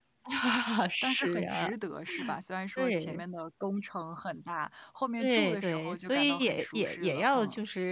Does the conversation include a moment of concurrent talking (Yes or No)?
Yes